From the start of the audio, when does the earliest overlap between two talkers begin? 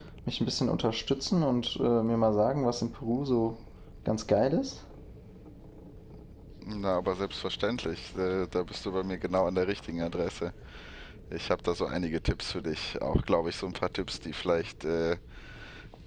none

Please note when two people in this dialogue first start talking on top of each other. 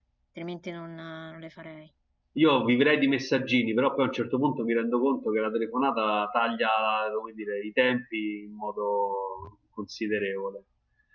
none

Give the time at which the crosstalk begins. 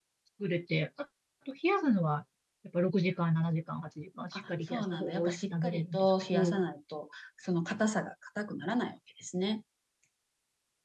4.3 s

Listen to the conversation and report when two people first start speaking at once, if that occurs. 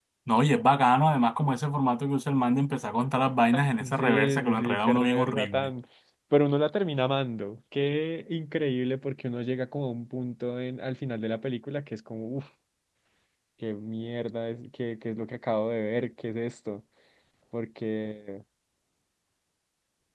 4.0 s

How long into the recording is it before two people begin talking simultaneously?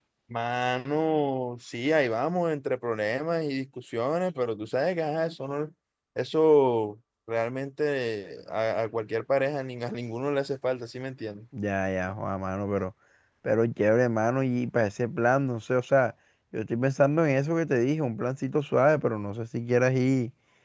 none

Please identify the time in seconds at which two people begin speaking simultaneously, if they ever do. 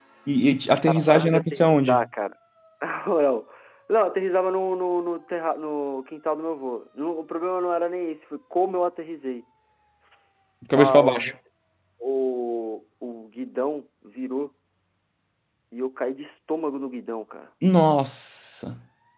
0.8 s

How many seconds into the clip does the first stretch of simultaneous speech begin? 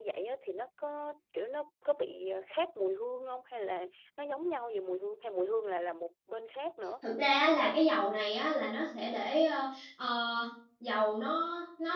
none

